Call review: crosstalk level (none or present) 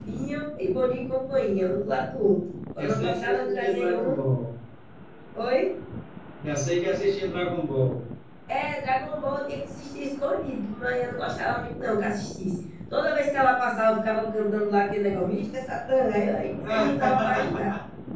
present